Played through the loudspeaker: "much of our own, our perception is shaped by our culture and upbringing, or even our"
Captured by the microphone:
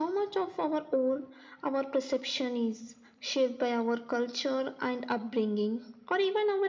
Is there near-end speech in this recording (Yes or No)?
No